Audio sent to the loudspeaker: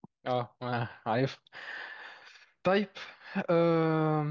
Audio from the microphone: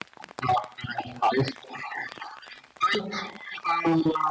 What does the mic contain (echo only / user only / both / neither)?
echo only